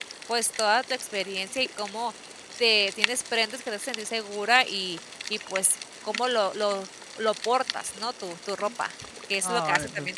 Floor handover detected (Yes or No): Yes